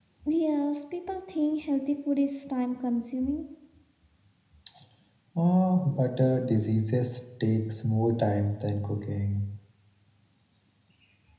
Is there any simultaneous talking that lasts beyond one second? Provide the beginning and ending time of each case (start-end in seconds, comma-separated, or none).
none